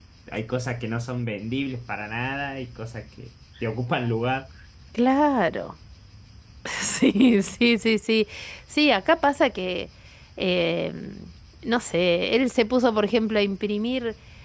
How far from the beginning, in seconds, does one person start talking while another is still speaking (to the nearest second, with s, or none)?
none